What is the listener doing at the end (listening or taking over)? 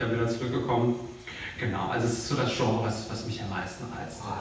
taking over